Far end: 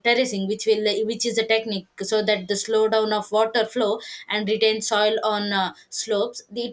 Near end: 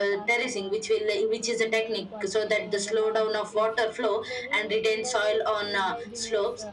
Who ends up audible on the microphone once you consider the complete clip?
both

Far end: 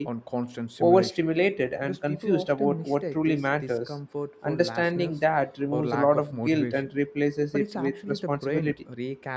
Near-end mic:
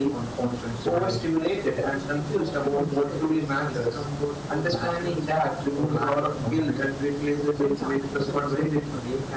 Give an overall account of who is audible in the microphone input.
echo only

